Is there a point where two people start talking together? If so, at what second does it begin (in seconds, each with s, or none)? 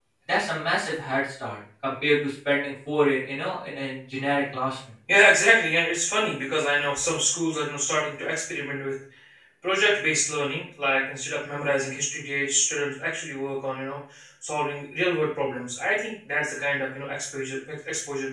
none